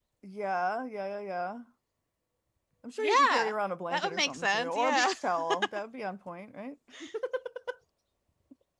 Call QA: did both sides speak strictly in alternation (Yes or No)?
No